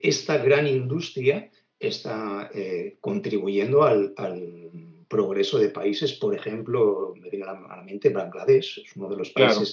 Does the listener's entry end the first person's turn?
No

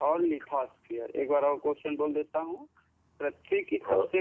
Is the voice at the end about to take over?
No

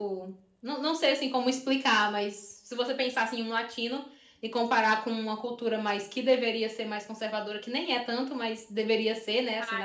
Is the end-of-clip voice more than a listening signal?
No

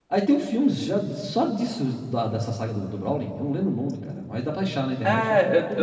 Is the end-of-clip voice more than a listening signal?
Yes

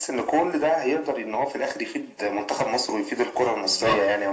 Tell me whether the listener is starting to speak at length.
Yes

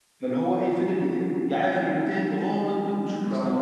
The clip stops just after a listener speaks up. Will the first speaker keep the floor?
Yes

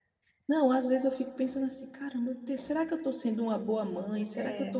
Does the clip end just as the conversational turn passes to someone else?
No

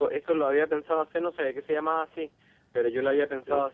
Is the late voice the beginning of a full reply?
No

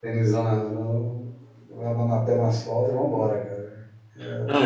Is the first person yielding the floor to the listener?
Yes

